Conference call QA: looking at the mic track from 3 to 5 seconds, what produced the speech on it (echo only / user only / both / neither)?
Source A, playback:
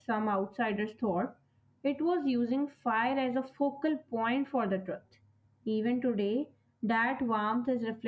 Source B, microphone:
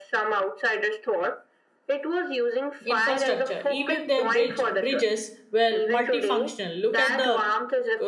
both